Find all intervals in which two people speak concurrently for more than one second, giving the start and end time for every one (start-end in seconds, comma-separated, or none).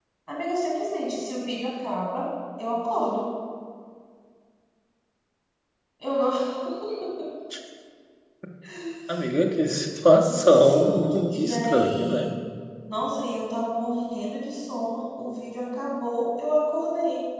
10.3-12.3